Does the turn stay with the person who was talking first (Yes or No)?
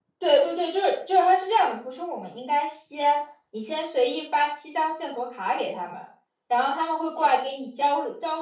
Yes